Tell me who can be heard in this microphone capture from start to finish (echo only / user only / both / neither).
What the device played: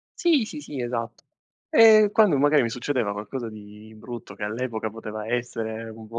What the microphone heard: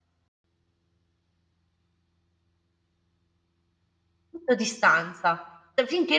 user only